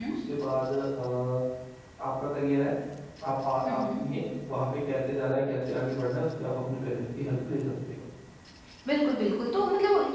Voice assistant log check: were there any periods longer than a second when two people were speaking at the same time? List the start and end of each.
none

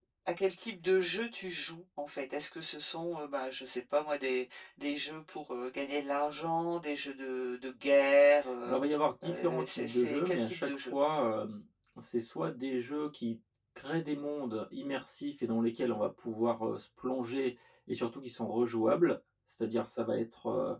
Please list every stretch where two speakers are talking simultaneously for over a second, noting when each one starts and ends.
9.2-10.9

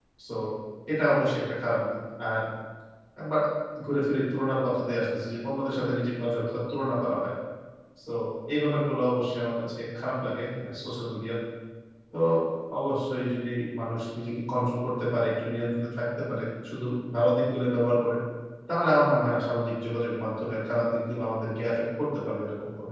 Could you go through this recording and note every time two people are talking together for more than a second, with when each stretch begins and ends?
none

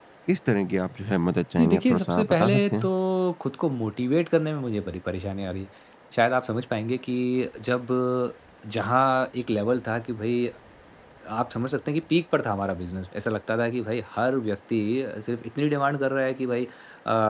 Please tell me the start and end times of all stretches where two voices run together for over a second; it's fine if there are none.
1.6-2.9

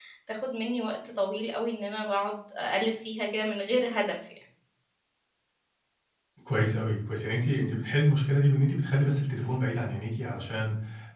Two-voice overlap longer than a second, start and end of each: none

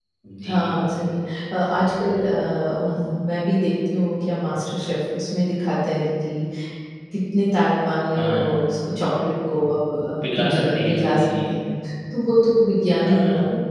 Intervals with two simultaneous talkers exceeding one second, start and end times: 10.2-11.5

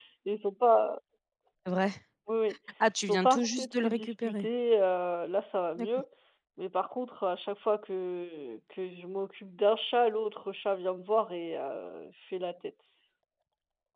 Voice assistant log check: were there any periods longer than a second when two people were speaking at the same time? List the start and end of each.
3.0-4.5

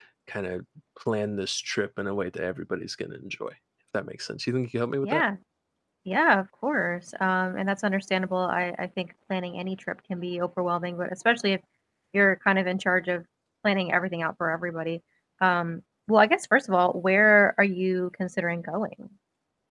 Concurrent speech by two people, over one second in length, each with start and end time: none

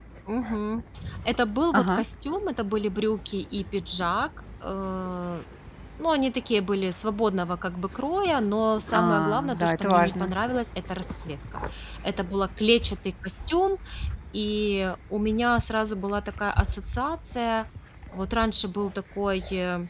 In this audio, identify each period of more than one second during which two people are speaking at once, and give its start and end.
8.9-10.3

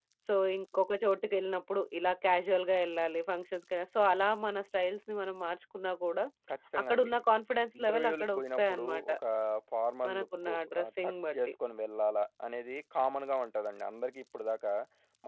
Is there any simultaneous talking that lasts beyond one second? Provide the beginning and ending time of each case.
7.8-9.1, 10.1-11.5

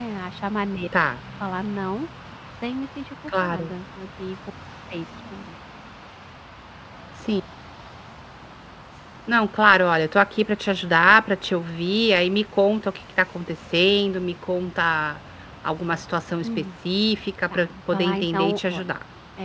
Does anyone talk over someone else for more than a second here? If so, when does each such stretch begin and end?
17.5-18.9

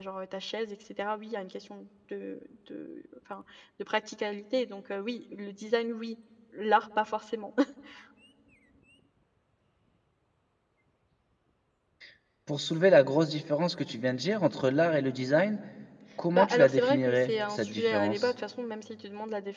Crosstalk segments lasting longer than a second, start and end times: 16.3-18.3

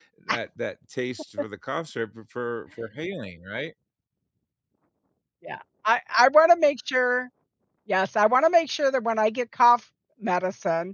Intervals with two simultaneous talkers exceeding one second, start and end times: none

